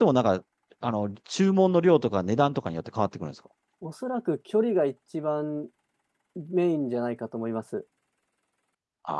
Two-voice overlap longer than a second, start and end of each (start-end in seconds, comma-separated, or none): none